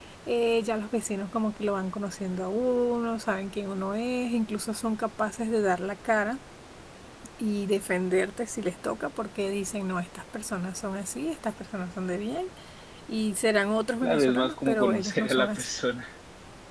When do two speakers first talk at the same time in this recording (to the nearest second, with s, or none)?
14 s